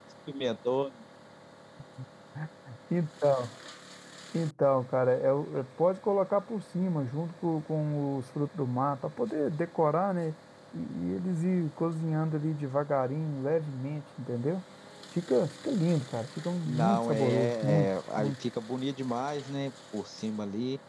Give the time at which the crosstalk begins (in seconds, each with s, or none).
16.6 s